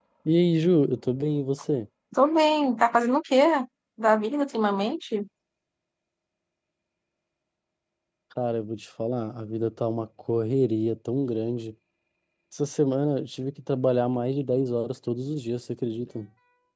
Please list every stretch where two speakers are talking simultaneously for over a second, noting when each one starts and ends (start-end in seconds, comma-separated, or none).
none